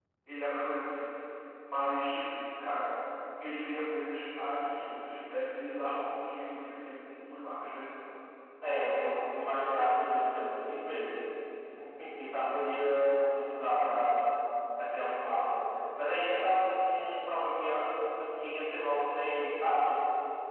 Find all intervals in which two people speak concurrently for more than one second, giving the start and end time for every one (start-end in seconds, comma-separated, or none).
none